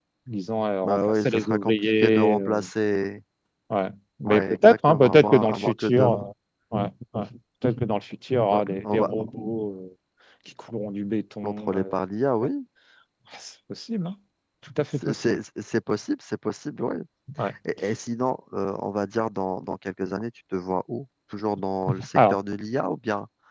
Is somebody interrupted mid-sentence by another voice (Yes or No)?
Yes